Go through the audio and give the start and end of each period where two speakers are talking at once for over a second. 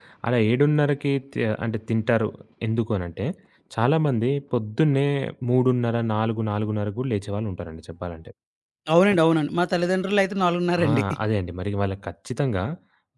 none

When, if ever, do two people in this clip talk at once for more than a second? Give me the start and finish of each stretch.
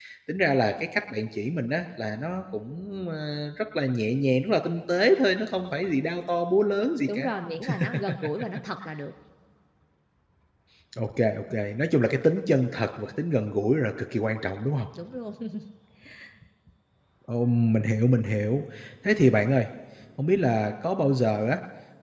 none

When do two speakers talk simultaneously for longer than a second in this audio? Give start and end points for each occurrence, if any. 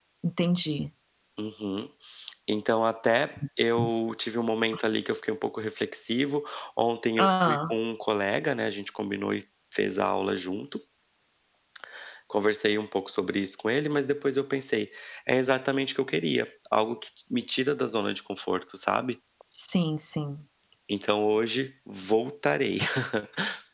none

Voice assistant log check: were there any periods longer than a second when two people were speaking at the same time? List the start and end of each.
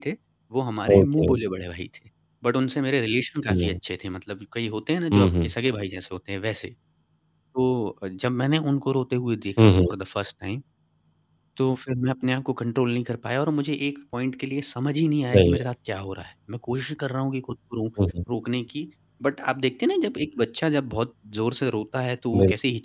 none

